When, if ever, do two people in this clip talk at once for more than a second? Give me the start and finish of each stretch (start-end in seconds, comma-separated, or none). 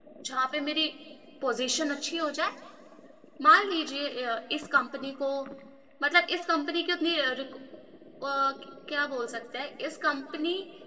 none